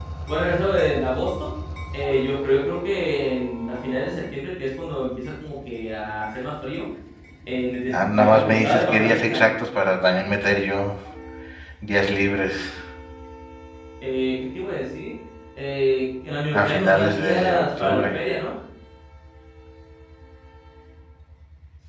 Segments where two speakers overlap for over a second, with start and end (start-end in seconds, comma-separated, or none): 7.9-9.4, 16.5-18.1